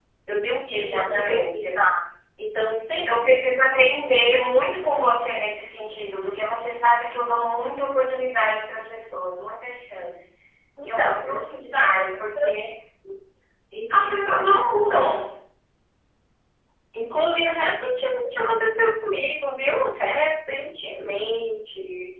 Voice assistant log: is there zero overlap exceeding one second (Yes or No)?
No